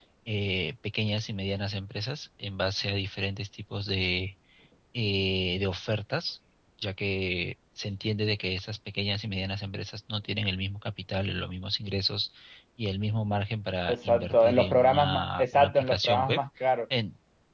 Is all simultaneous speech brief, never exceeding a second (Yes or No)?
No